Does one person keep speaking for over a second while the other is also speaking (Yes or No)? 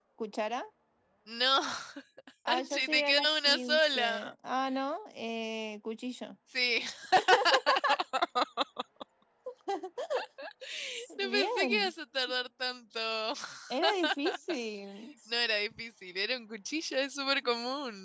Yes